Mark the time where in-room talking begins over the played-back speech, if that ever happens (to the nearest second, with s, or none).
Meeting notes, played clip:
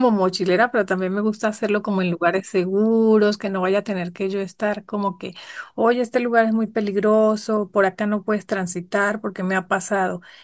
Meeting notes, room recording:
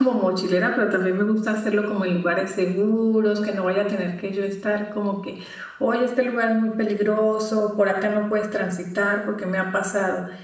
none